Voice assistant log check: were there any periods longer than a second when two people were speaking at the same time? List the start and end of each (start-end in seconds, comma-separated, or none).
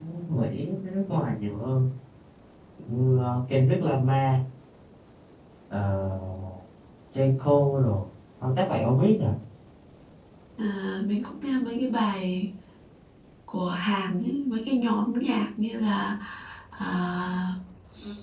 none